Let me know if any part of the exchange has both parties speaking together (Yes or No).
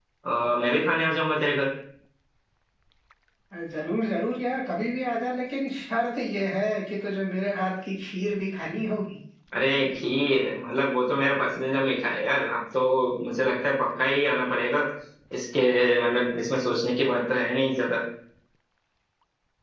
No